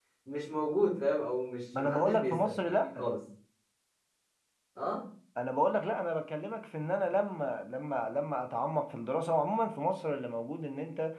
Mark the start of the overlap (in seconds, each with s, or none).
1.7 s